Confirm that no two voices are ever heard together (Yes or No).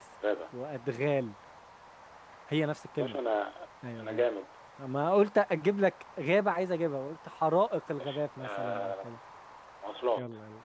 No